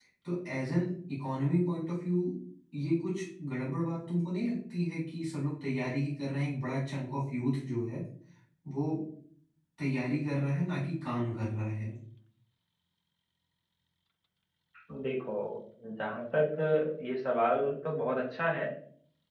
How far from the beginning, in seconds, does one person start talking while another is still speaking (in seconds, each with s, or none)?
none